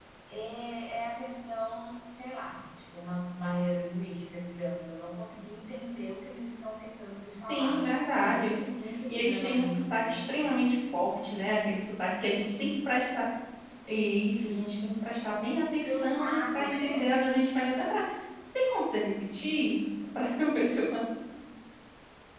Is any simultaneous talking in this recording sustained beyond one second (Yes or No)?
Yes